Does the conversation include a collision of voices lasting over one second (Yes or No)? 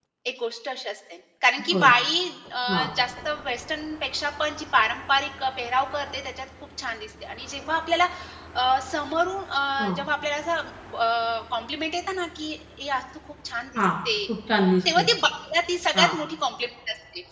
No